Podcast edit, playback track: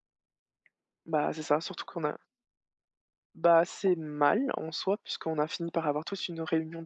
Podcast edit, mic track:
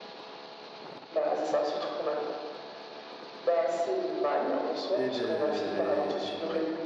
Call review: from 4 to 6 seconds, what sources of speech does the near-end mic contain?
both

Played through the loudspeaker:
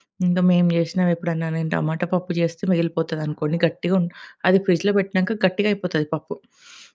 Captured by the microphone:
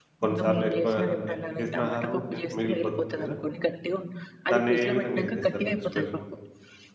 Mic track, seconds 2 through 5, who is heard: both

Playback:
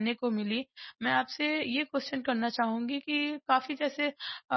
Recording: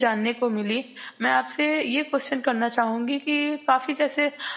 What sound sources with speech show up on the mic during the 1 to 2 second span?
echo only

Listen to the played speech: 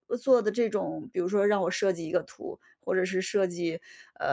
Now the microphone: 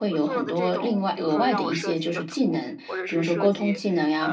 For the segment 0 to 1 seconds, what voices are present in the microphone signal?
both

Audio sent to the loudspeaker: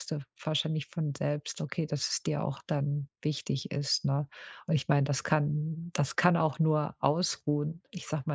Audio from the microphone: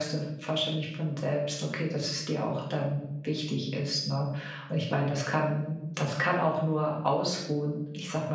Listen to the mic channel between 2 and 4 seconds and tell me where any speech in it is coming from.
echo only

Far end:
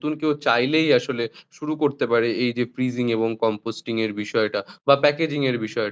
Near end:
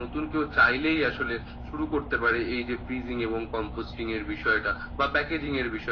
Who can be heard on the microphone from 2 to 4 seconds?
echo only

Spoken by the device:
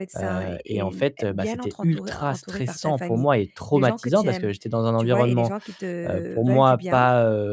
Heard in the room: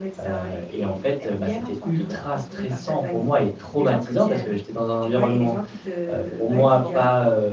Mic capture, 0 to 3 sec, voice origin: echo only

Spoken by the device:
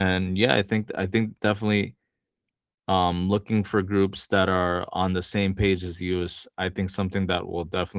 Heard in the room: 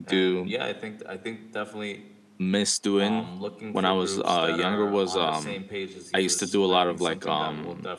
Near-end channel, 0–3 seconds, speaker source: both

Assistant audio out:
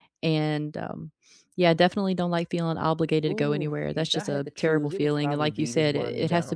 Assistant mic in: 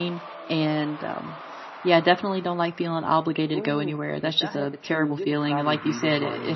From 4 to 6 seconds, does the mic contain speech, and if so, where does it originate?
echo only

